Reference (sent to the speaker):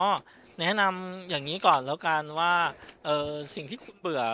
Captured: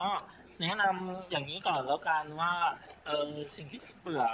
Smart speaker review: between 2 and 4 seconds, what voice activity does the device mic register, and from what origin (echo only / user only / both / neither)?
echo only